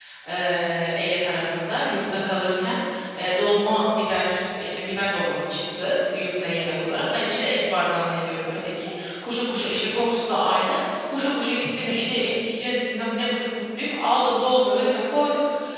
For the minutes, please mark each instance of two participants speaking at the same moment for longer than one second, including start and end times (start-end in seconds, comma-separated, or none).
none